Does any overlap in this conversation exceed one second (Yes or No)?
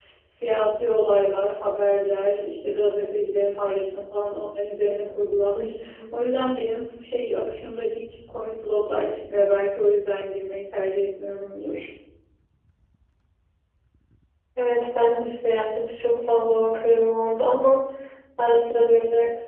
No